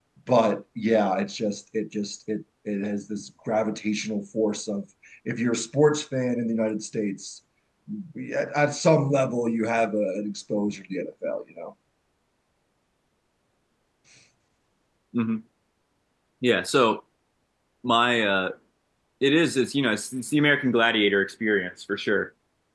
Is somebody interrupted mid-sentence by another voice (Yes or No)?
No